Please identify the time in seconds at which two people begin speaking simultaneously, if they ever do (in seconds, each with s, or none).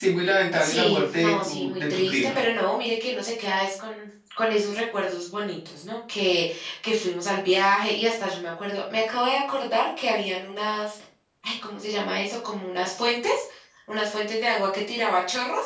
0.6 s